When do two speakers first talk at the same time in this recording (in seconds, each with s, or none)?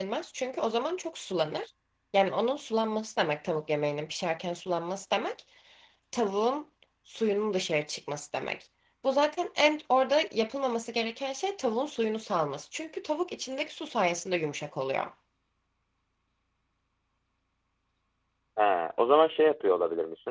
none